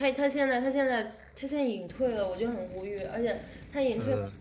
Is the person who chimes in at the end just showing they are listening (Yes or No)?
Yes